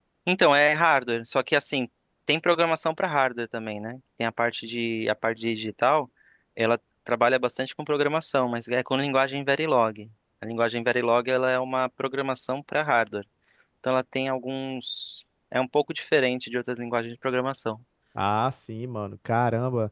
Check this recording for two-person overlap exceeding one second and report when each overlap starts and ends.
none

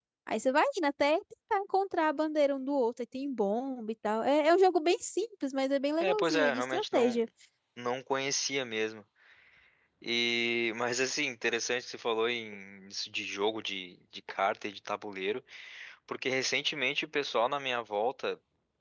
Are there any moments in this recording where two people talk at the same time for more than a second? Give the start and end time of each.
6.0-7.2

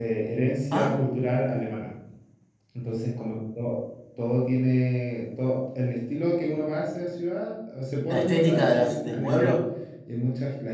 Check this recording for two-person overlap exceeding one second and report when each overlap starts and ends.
8.1-9.6

